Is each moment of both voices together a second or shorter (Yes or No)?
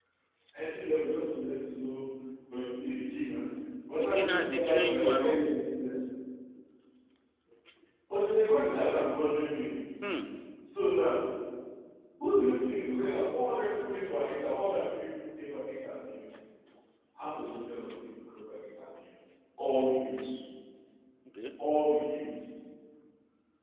No